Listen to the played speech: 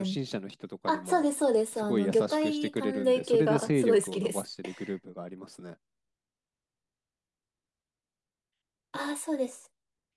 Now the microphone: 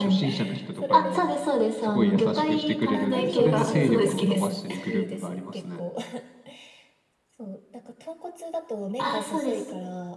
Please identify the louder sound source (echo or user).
echo